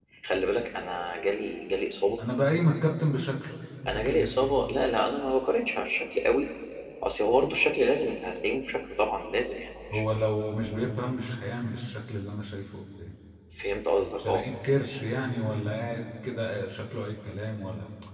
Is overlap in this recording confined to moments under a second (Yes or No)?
Yes